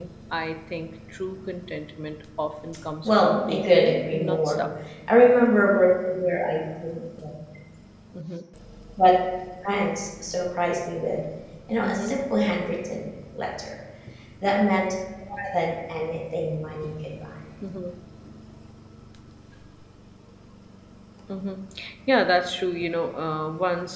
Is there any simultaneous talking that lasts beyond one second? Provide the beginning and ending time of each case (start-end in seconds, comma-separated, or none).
3.0-4.7